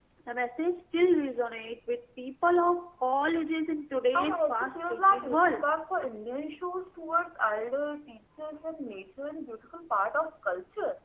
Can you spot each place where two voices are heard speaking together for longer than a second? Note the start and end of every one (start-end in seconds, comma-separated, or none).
4.2-5.7